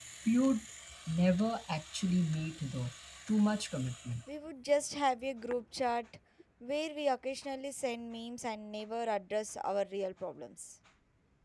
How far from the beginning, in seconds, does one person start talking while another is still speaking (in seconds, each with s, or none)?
none